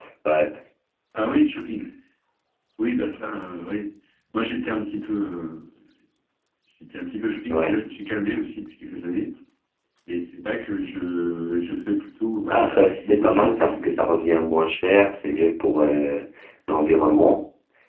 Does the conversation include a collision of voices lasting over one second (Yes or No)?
Yes